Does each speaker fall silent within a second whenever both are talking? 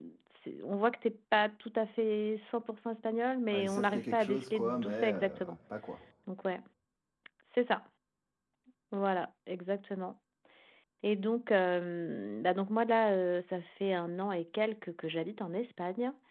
No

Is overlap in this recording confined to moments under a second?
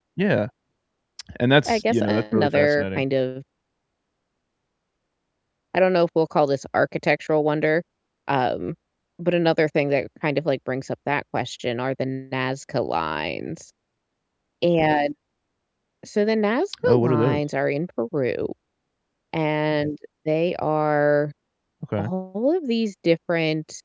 No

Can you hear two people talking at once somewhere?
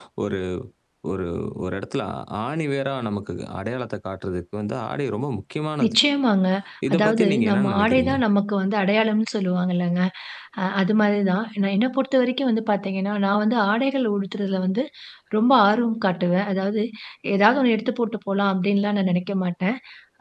Yes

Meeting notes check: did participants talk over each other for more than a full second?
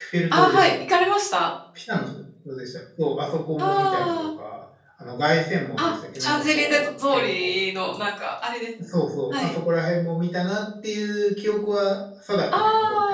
Yes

